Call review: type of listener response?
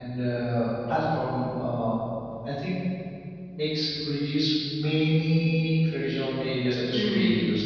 listening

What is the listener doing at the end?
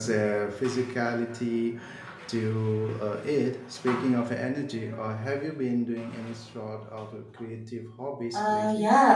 taking over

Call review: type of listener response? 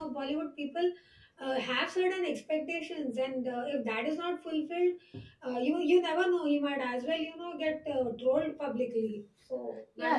taking over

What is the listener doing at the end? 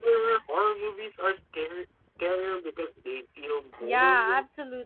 taking over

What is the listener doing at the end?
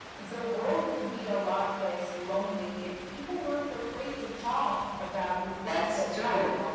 taking over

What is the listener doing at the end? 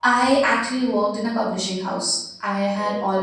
listening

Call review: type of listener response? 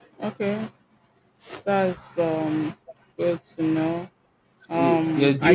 taking over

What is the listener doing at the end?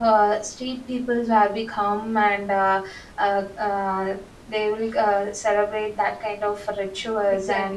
taking over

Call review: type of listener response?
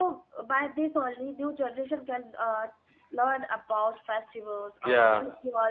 listening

